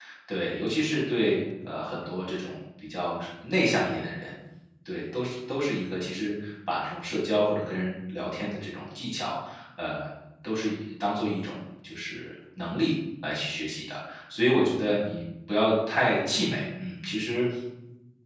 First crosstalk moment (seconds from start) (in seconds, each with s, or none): none